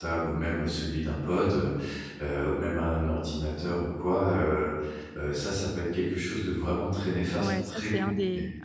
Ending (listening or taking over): taking over